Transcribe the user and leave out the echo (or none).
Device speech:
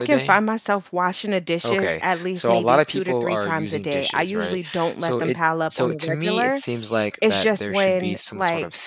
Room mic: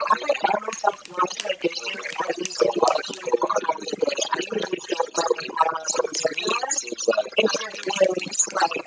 none